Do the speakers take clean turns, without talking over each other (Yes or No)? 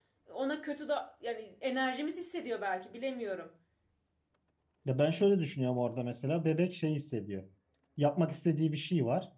Yes